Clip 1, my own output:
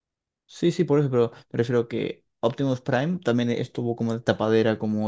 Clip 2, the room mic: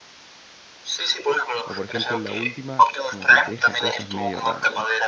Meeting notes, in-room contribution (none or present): present